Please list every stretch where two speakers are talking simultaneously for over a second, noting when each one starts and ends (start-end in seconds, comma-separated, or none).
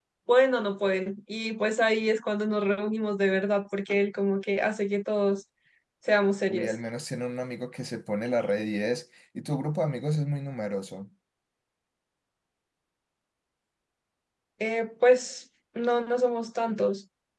none